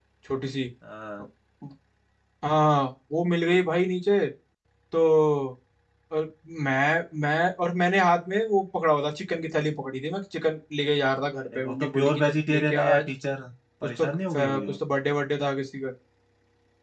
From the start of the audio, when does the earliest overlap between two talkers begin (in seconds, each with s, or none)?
11.6 s